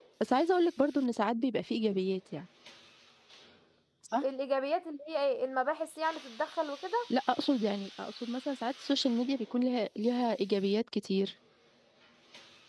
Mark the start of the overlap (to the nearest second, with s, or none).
none